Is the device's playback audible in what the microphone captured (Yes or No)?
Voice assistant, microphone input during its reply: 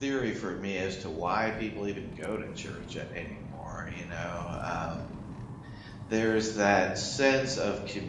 No